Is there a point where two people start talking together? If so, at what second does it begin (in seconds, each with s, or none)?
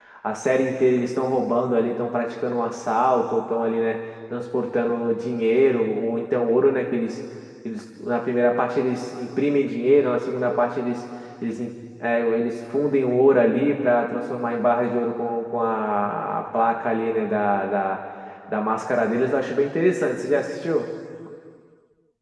none